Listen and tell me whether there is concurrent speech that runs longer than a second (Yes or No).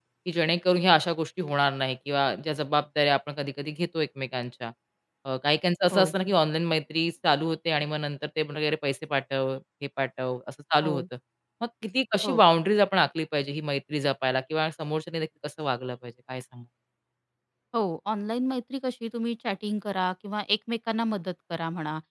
No